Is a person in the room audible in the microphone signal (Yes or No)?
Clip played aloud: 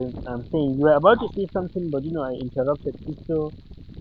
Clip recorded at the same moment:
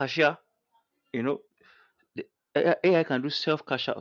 Yes